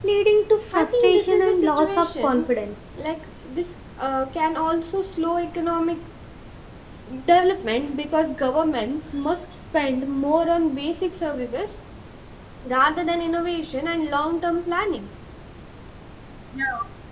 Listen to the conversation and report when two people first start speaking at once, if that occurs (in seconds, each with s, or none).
0.8 s